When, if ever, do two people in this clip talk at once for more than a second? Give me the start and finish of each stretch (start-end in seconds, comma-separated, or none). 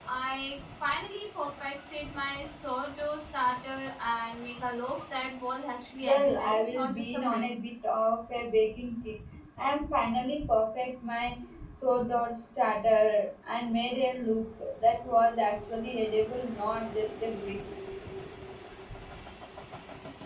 6.0-7.4